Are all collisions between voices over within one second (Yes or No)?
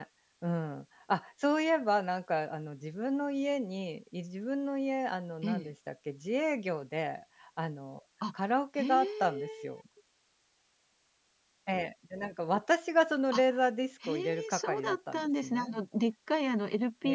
No